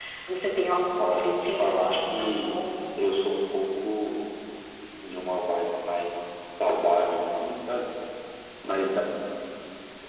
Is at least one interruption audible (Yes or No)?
Yes